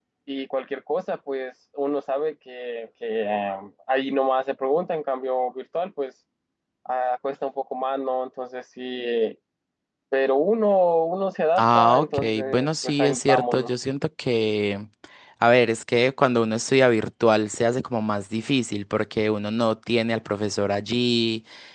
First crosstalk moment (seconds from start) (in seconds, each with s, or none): 11.6 s